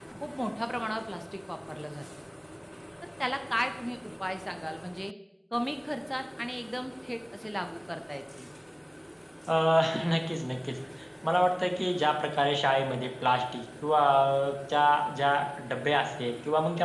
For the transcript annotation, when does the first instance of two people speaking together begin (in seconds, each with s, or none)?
none